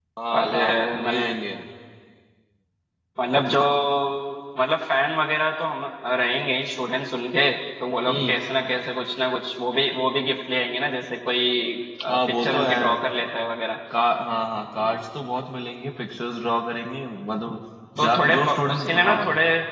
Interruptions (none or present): present